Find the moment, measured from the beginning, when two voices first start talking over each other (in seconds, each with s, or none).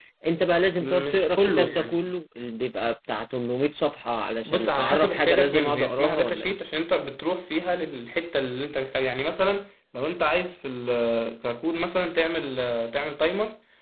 0.8 s